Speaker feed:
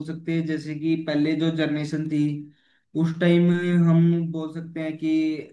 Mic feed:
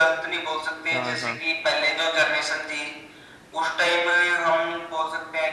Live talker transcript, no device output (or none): हाँ हाँ